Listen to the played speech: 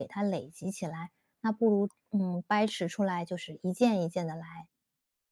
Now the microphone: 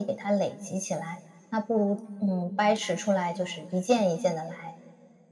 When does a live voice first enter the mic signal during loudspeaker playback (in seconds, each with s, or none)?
none